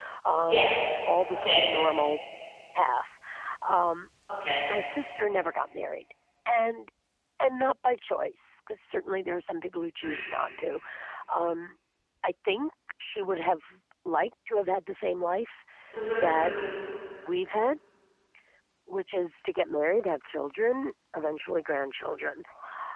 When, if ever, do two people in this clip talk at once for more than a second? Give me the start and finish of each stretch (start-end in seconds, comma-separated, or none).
none